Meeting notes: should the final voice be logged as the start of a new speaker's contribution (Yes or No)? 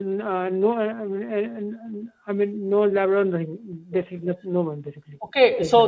Yes